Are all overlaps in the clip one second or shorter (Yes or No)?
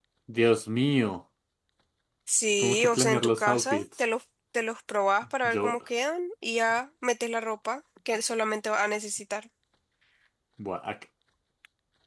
No